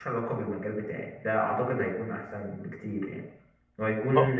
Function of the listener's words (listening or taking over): listening